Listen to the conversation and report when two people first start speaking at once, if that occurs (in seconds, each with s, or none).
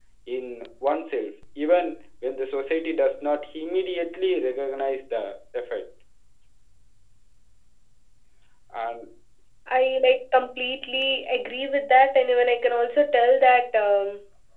none